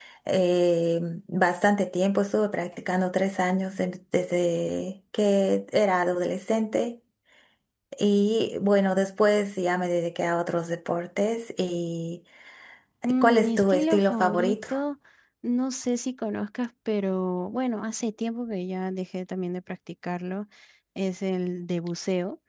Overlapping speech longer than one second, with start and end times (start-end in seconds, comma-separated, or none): 13.2-14.6